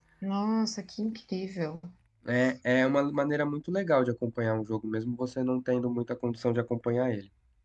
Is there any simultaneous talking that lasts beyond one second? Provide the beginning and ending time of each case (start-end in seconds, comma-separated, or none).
none